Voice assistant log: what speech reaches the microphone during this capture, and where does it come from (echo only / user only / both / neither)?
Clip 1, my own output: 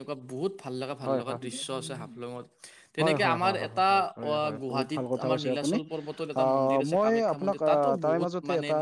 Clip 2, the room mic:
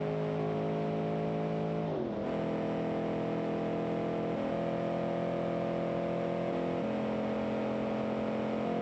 neither